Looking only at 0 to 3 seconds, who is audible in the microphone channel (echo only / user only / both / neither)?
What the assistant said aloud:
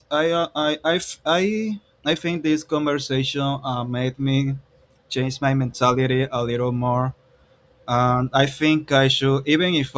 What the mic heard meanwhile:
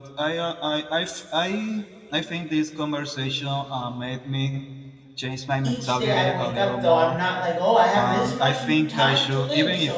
echo only